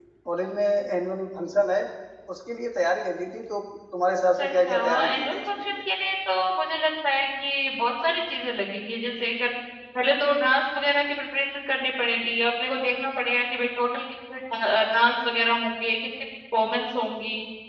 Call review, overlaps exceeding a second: present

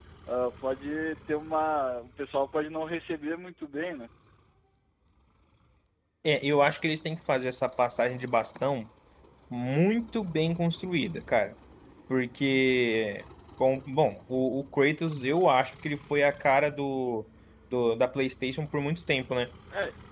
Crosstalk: none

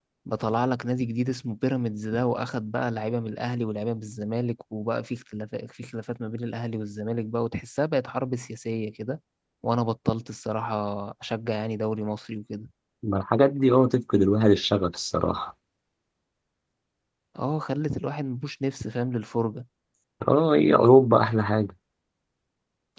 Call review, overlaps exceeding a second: none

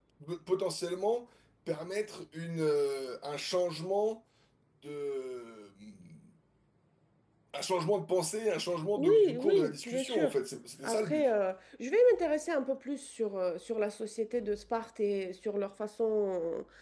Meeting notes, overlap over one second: present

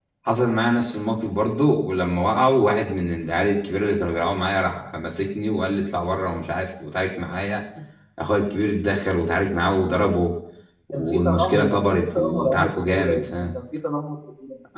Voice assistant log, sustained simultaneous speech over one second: present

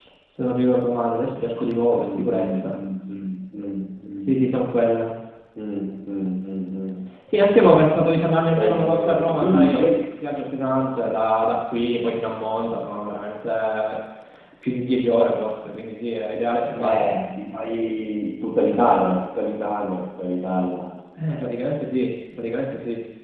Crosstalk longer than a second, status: present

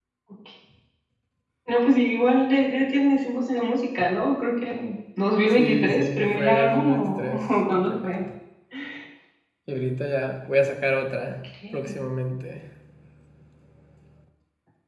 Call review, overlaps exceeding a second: present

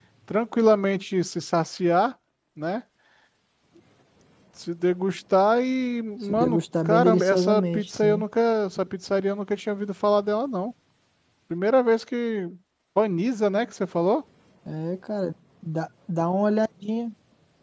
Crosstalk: present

